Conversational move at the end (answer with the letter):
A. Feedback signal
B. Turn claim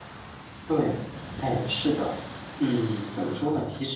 A